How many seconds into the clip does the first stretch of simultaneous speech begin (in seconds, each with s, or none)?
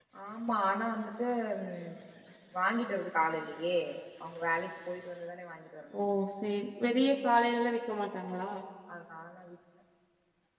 none